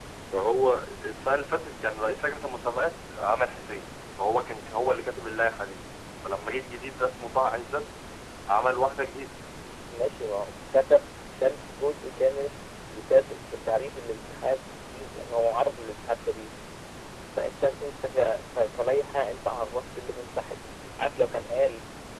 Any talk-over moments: No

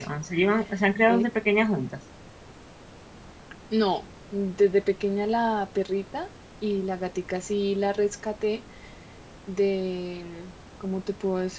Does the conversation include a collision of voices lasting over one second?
No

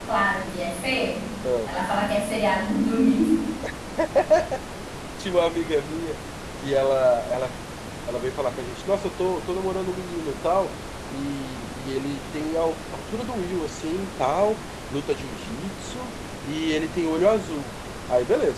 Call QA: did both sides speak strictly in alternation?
Yes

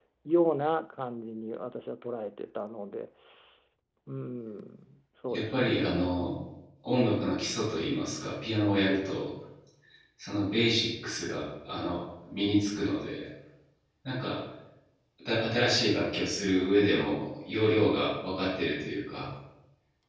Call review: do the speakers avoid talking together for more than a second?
Yes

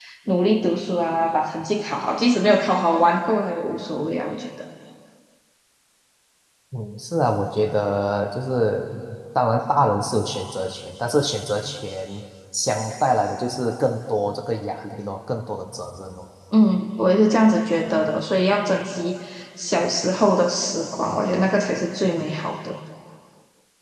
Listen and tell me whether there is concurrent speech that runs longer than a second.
No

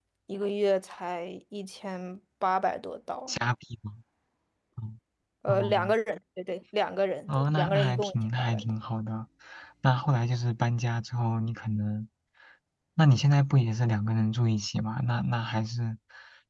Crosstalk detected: Yes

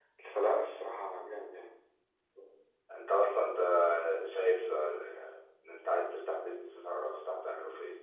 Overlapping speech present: No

